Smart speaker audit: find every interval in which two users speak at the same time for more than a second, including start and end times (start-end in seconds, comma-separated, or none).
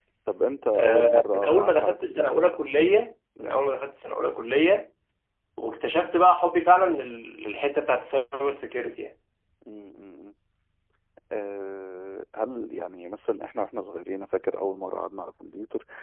0.7-2.2